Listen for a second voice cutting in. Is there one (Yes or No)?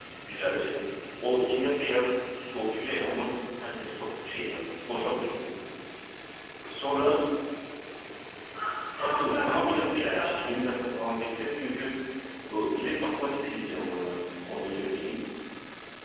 Yes